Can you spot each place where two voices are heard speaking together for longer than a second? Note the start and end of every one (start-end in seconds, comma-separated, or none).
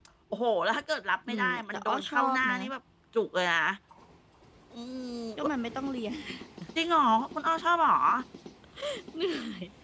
1.3-2.6